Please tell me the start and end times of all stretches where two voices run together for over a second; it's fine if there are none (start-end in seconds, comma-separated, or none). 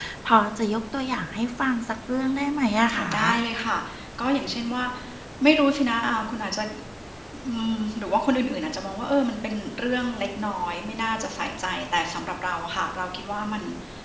none